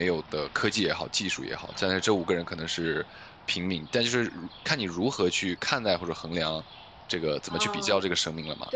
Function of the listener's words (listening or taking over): taking over